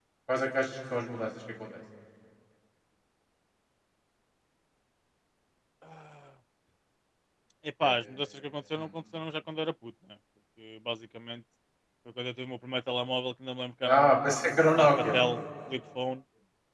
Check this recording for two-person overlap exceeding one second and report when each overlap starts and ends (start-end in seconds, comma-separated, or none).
13.8-15.2